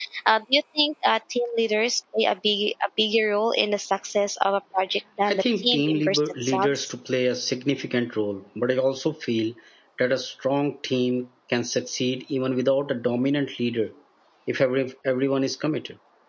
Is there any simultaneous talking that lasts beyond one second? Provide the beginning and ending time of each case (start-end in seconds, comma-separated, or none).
5.3-6.9